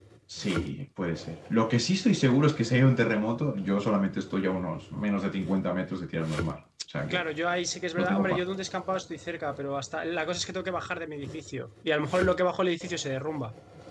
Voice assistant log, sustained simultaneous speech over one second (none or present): none